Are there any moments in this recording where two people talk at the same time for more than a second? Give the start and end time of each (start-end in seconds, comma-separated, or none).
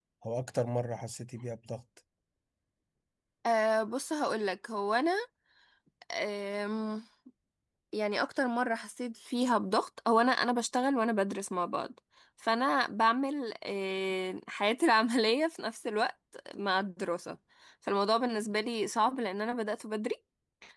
none